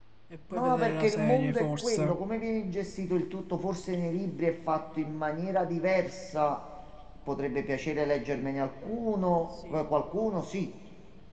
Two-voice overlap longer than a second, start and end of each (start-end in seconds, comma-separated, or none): 0.5-2.2